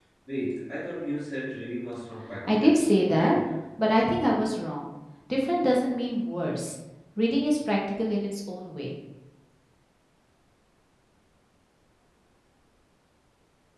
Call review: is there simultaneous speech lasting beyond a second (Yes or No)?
No